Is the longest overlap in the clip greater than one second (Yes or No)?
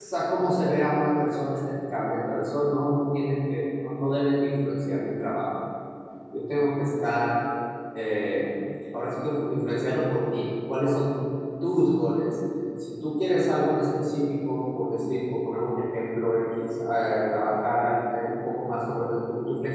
No